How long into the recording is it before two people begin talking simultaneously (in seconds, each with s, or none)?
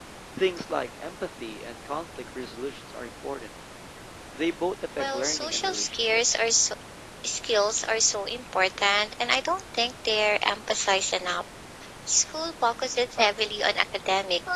5.0 s